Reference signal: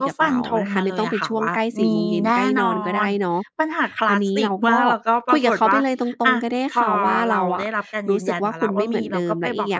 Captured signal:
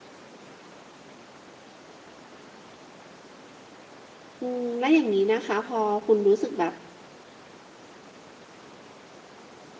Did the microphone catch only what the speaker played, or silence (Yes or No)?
No